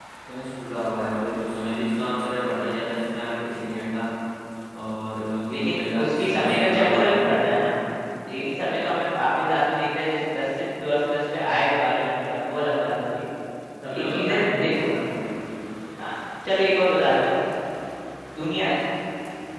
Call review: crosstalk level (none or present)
present